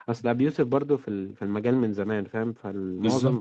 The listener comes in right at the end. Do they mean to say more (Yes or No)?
No